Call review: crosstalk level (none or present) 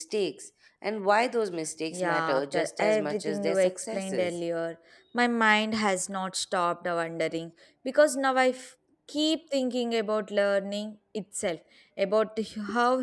present